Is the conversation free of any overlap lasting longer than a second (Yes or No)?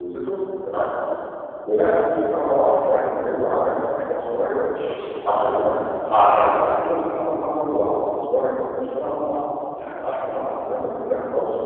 Yes